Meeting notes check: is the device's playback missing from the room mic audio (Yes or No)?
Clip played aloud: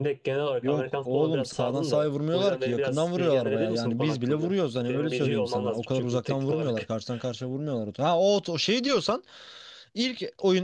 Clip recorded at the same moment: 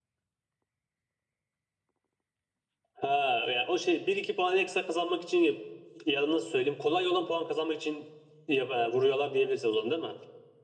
Yes